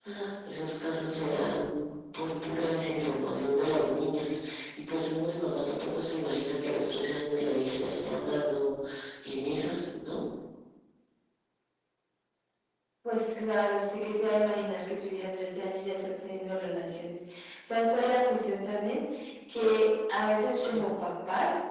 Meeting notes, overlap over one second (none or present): none